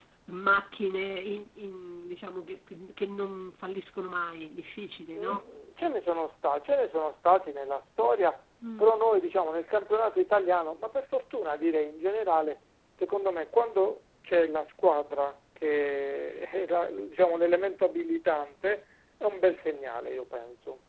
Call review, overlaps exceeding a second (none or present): none